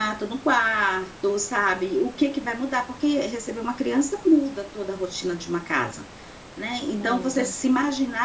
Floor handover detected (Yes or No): No